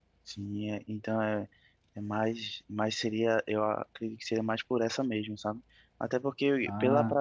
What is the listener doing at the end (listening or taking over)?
listening